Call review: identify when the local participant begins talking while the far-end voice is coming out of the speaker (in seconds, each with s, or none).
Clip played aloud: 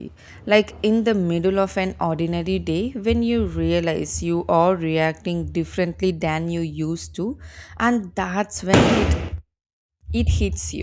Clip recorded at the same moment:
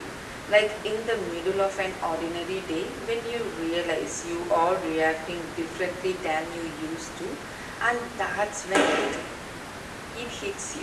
none